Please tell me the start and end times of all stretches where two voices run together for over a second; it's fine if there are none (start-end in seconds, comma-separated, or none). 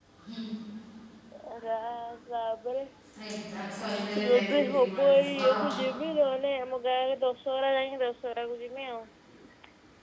4.3-5.7